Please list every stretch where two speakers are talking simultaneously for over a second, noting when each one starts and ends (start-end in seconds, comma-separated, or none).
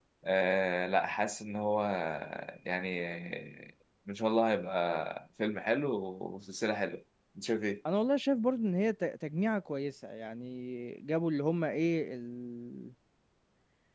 none